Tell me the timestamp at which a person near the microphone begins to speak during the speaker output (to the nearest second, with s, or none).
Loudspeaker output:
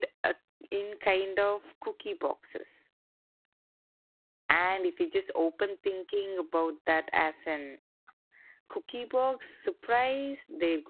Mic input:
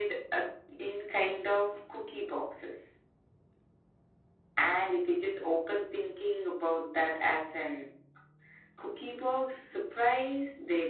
none